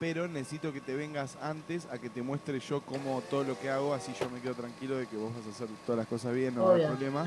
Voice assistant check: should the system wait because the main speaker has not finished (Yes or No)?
No